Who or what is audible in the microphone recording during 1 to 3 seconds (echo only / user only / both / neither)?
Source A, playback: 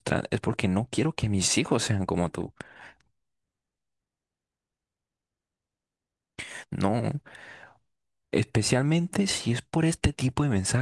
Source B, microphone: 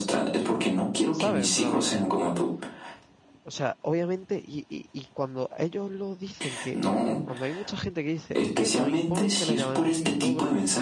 both